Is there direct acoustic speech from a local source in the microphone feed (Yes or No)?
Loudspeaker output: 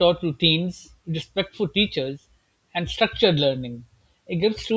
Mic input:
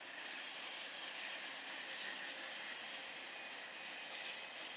No